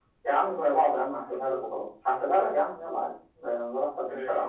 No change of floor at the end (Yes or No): No